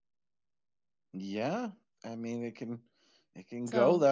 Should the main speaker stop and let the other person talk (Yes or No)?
No